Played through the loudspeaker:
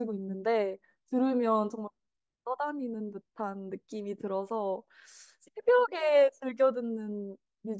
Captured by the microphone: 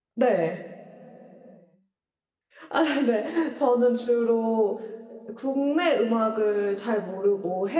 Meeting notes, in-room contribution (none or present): present